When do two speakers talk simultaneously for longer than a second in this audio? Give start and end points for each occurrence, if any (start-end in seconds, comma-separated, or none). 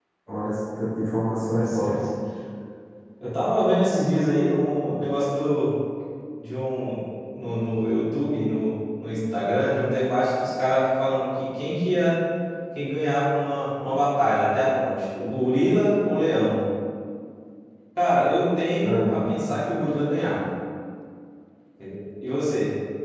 none